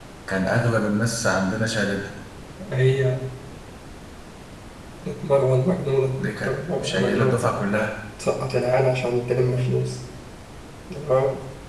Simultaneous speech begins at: 6.2 s

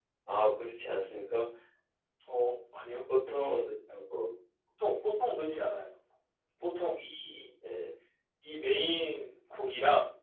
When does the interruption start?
none

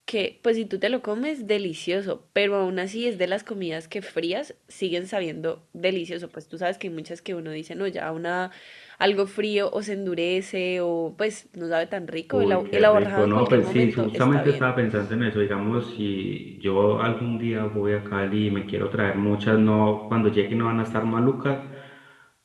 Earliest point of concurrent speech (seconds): 12.3 s

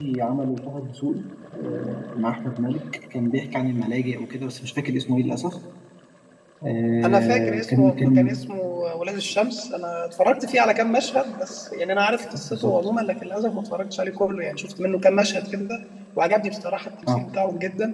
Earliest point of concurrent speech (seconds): 7.0 s

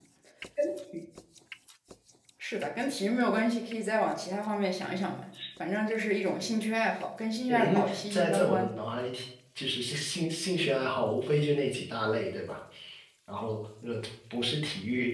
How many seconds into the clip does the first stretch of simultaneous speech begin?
7.5 s

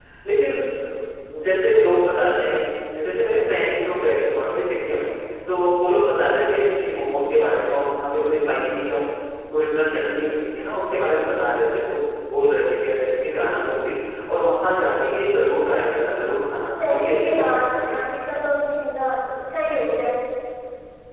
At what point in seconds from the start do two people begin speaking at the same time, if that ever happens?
16.8 s

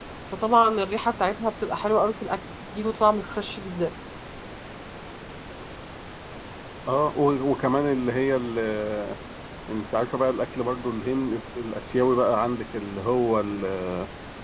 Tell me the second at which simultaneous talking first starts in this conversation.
none

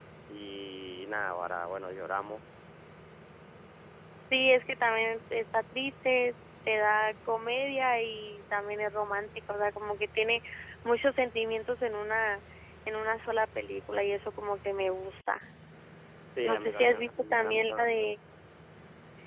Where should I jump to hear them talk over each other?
16.5 s

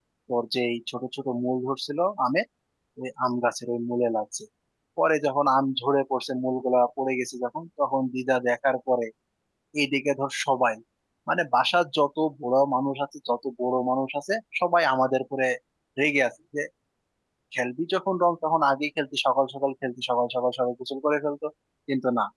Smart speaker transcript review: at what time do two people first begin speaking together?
none

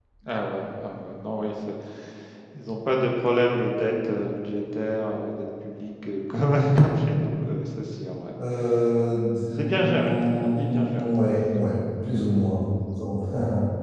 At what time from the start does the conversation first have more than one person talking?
9.6 s

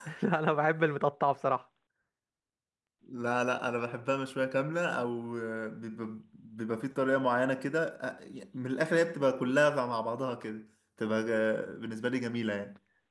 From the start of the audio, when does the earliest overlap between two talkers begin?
none

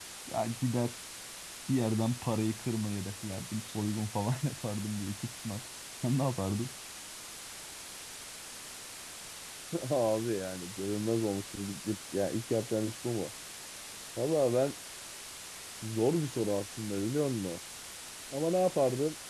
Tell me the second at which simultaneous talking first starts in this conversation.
none

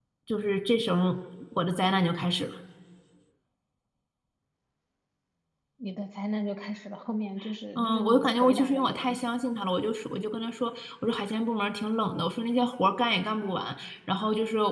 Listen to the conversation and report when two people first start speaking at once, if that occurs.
7.8 s

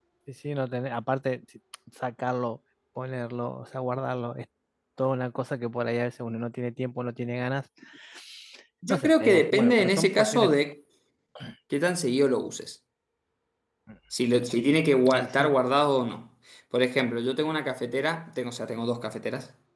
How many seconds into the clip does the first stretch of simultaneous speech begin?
8.9 s

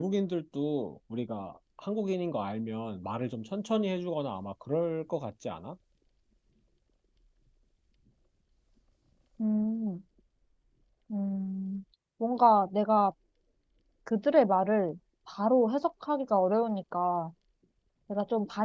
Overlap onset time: none

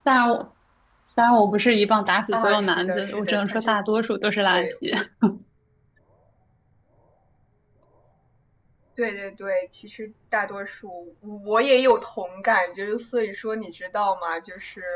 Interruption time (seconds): 2.3 s

